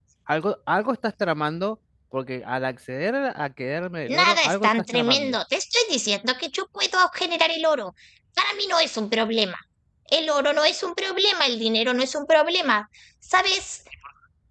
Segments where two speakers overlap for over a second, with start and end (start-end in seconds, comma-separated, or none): 4.1-5.3